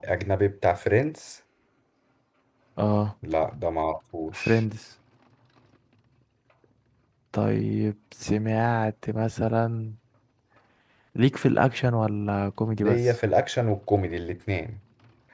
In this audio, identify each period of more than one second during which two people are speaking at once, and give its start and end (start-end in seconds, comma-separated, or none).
none